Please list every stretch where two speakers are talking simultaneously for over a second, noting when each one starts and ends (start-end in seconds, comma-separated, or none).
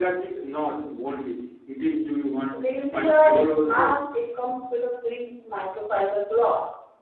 2.5-4.0